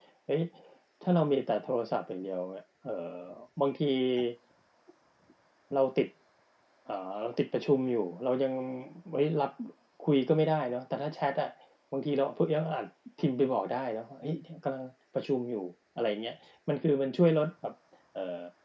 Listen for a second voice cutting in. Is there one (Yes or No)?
No